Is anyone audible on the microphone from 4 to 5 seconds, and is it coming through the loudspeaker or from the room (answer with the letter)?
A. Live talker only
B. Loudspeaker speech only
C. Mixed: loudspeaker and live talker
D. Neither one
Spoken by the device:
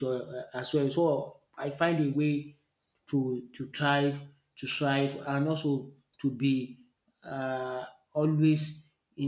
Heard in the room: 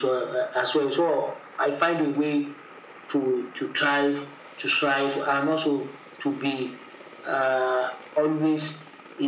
B